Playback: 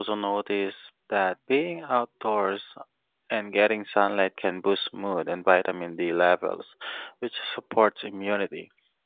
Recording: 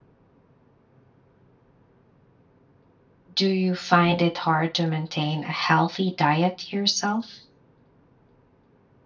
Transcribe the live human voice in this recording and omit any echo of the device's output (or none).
Do you find it hard to maintain a healthy diet yourself?